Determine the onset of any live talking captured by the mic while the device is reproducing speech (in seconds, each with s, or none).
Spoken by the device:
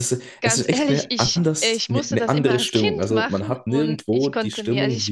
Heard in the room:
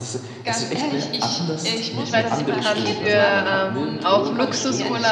2.0 s